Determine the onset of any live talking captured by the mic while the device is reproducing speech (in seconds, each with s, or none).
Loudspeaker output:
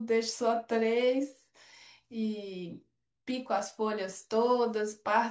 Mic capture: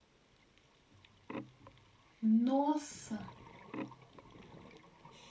2.2 s